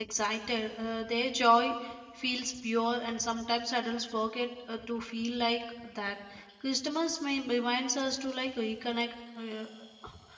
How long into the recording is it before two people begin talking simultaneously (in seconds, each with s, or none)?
none